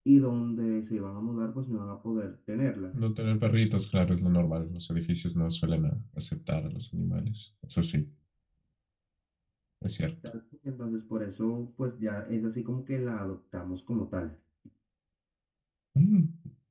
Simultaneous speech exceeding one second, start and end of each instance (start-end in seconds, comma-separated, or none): none